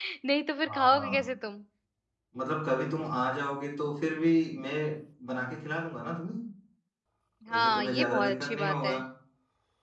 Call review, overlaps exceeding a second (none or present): present